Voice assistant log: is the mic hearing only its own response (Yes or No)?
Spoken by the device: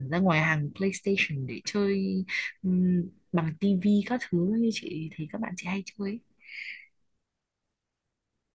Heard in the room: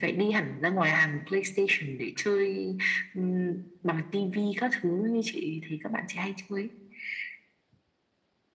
Yes